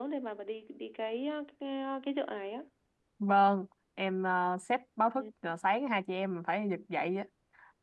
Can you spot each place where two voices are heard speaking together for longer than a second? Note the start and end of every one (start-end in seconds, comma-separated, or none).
none